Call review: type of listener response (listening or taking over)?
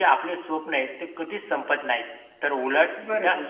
listening